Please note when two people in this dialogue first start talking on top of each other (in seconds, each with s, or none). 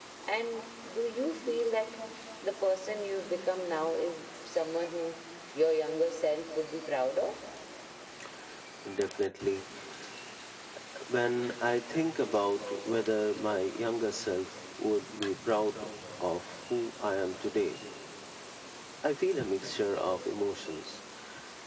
none